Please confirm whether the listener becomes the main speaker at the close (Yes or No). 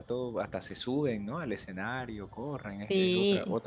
Yes